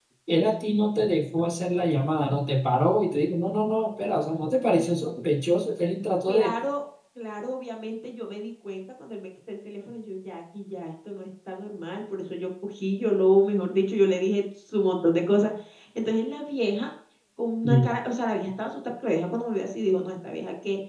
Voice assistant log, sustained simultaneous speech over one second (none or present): none